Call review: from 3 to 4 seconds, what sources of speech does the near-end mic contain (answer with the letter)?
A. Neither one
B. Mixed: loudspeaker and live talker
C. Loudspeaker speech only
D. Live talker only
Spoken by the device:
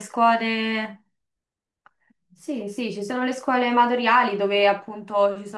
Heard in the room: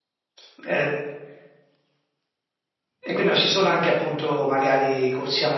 D